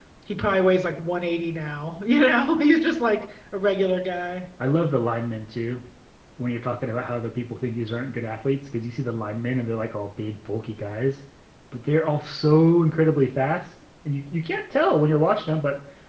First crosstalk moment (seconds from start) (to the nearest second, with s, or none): none